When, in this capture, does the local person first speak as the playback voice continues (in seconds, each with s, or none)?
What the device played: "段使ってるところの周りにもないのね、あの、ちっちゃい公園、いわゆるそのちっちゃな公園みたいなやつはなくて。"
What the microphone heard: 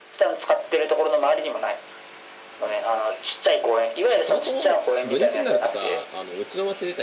4.2 s